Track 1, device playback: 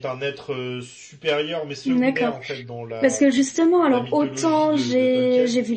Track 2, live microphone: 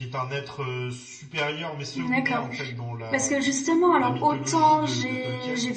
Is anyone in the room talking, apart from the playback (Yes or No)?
No